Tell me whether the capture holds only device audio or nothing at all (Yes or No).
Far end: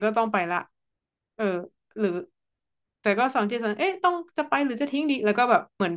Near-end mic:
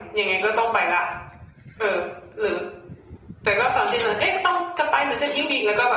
Yes